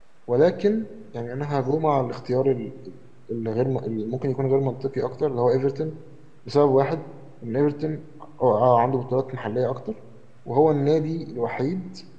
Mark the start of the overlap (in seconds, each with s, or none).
none